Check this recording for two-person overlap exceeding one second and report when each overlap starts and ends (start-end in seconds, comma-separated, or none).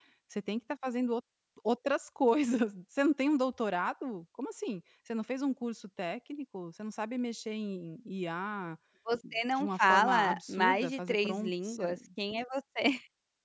9.5-11.8